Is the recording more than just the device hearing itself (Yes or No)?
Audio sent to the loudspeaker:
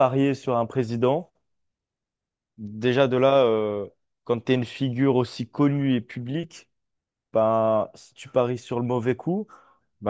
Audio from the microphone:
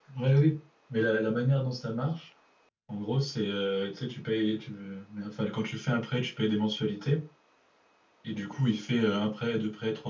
Yes